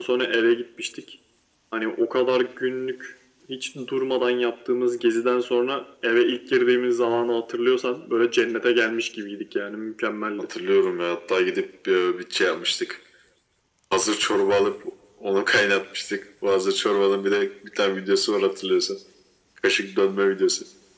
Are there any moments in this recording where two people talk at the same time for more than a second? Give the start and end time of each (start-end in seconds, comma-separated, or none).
none